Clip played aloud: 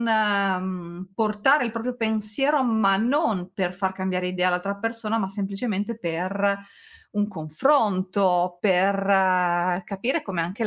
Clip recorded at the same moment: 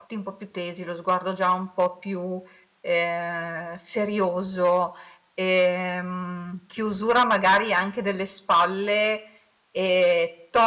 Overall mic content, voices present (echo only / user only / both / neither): user only